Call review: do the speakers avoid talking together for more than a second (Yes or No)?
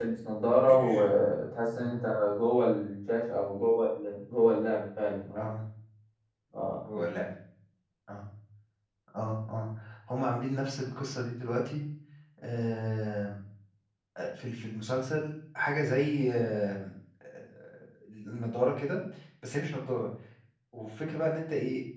Yes